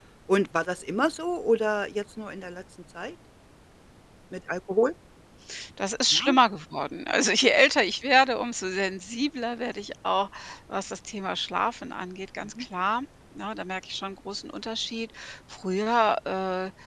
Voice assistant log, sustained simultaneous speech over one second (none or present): none